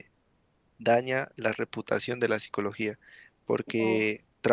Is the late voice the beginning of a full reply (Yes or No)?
No